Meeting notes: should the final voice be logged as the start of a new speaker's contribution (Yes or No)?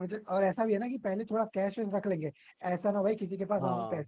No